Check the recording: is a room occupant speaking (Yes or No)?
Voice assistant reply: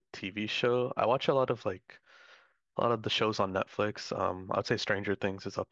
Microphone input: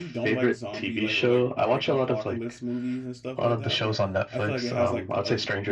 Yes